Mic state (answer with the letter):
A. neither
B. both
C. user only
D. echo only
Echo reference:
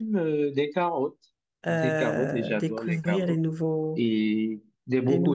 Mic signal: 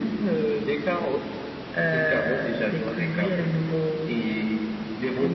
D